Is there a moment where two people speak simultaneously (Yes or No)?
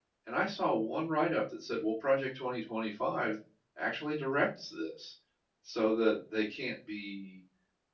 No